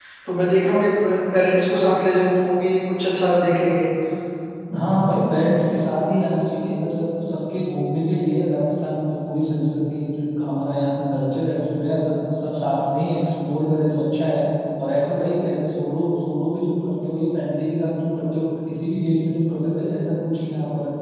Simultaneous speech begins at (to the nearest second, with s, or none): none